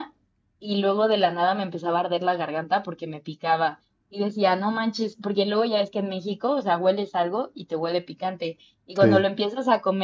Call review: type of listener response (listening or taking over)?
listening